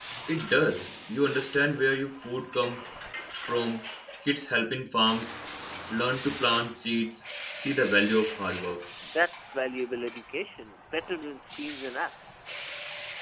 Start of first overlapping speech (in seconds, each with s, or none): none